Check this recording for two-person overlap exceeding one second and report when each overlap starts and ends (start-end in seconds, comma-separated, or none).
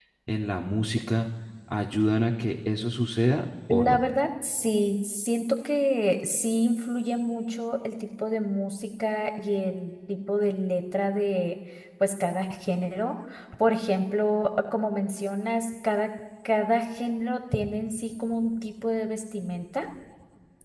none